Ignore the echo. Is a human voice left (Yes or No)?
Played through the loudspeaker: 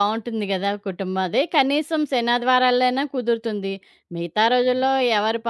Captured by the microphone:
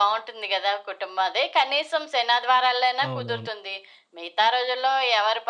Yes